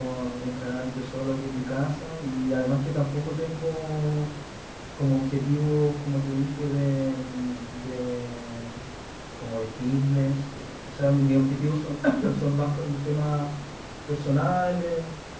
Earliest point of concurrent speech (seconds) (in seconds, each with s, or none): none